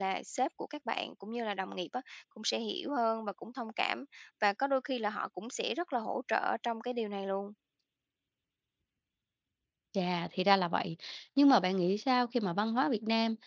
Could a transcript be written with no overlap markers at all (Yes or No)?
Yes